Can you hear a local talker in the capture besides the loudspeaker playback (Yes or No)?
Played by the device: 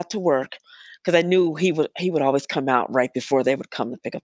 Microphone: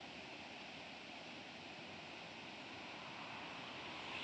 No